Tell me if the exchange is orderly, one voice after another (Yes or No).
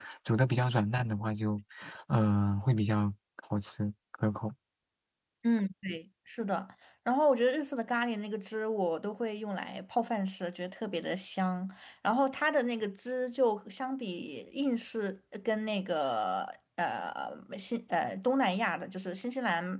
Yes